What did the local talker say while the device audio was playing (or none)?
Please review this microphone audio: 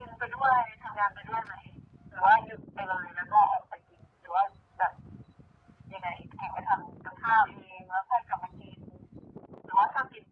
none